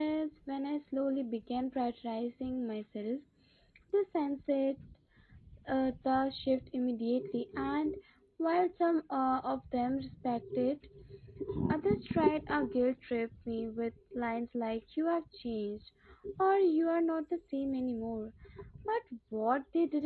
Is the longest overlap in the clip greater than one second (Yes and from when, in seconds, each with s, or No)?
No